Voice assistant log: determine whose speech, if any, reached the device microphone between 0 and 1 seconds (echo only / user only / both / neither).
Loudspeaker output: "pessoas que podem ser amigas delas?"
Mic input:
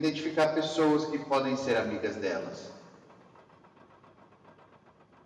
echo only